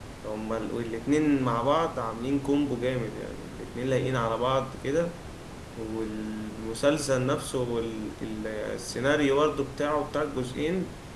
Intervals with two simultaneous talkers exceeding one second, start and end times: none

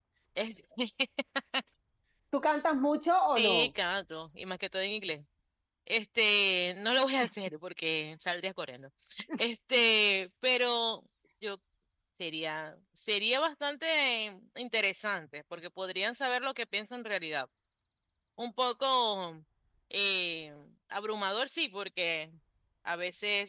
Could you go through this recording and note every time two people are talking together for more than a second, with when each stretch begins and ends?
none

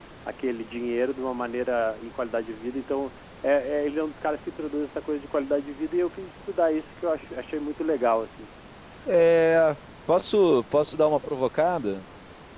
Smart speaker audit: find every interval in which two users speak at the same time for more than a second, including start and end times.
none

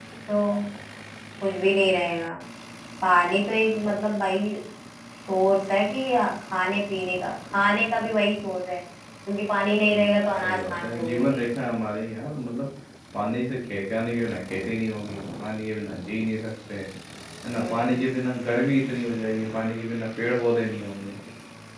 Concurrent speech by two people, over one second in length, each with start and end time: 9.8-11.4

